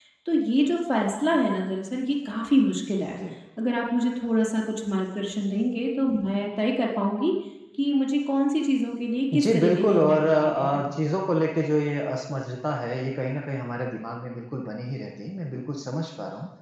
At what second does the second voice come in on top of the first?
9.3 s

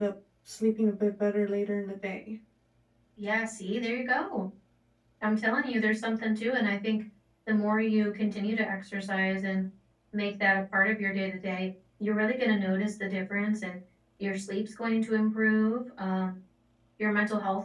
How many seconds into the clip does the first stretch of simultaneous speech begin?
none

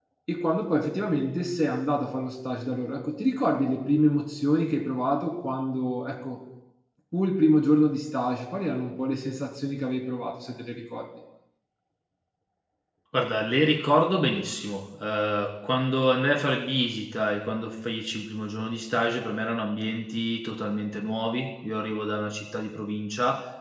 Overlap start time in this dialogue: none

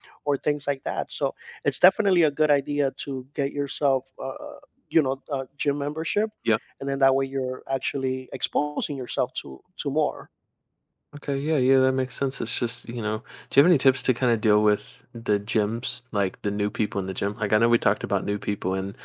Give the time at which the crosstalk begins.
none

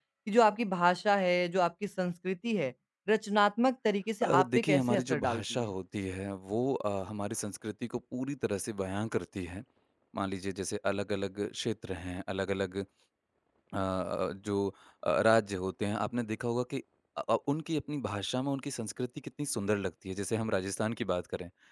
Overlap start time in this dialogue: 4.2 s

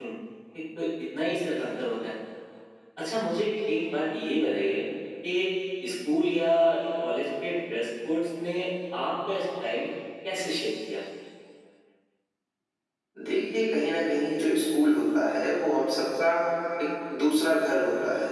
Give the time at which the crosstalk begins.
none

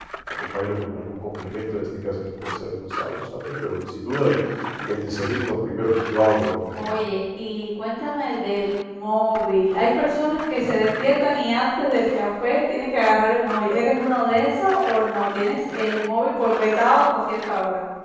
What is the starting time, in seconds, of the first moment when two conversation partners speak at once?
none

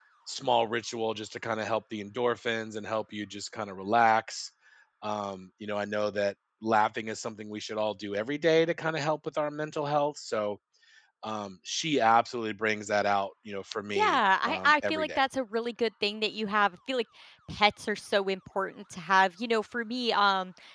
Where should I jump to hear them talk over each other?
14.0 s

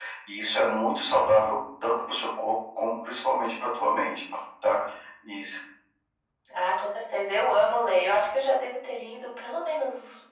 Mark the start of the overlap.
none

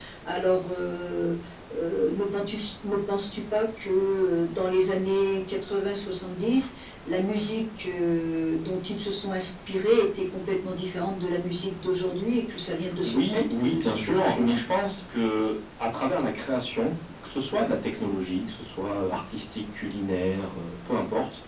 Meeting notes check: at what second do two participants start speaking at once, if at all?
13.0 s

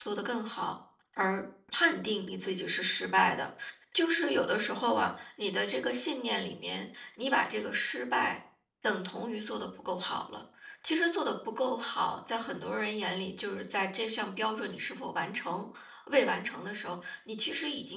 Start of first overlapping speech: none

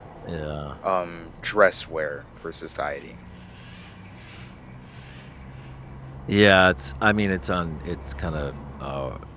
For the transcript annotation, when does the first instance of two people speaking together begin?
none

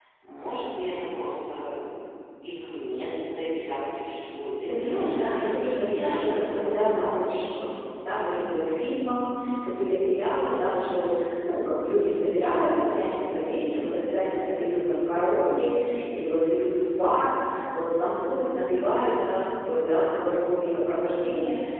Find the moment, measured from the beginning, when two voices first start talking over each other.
4.7 s

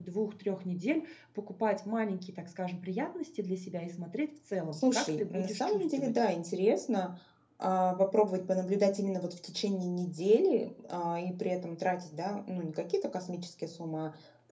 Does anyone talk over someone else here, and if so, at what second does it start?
4.7 s

